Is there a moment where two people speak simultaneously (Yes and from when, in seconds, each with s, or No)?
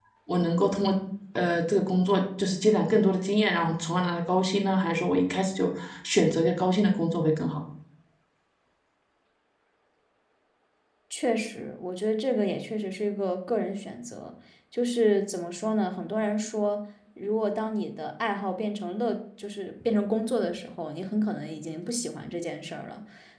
No